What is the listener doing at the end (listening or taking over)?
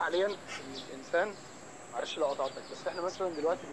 listening